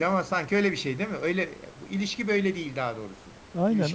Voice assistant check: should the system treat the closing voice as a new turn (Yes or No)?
Yes